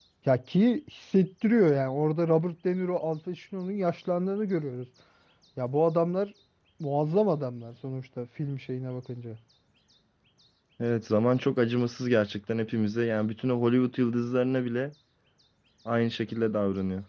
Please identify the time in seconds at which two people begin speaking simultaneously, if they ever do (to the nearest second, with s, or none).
none